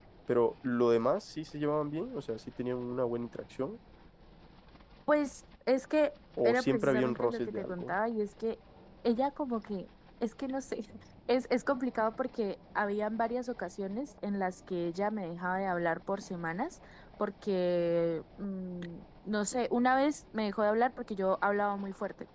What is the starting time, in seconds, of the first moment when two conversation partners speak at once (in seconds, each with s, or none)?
6.4 s